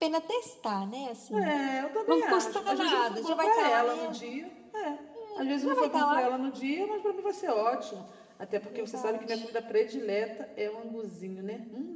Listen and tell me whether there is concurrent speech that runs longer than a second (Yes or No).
Yes